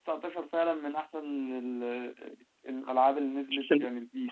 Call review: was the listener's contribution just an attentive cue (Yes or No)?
No